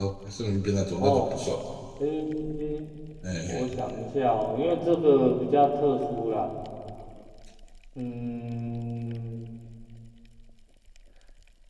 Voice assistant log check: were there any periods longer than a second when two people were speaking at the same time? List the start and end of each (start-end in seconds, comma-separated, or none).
none